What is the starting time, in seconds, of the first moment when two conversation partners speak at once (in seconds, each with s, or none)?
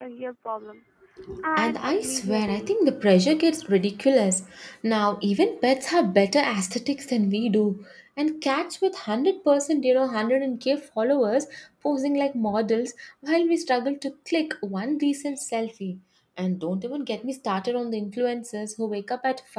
1.6 s